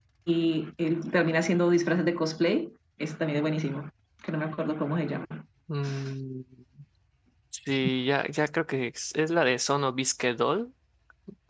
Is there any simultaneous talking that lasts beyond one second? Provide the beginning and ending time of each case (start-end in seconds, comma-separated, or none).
none